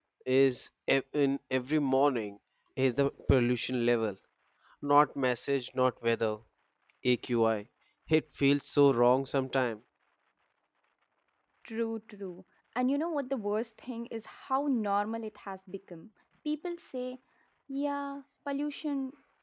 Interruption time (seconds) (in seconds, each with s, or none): none